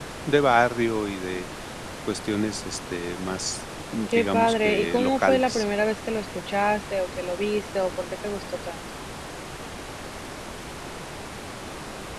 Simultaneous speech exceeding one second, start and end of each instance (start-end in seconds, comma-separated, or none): 4.1-5.6